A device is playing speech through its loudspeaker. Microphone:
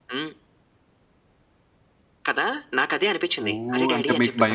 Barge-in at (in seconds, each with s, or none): 3.5 s